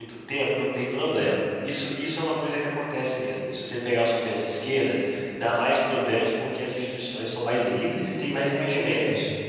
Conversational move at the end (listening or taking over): taking over